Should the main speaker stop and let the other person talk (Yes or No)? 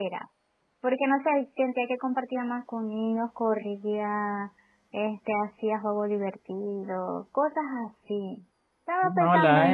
Yes